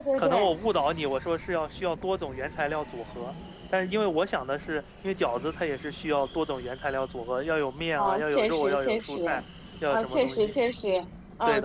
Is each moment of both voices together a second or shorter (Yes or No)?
No